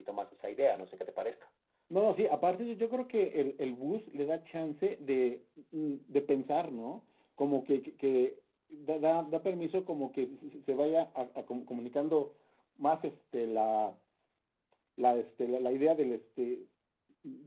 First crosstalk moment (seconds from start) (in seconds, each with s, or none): none